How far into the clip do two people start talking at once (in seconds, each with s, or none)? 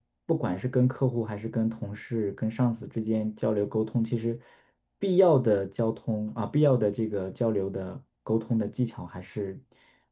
none